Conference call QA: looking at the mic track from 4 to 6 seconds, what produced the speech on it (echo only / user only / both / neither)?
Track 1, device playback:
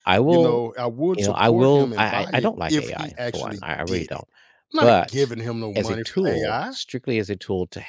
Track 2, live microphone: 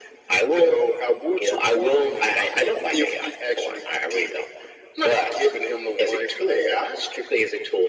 echo only